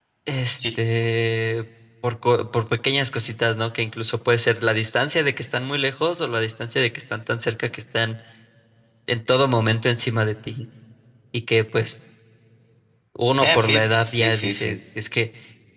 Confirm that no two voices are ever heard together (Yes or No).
No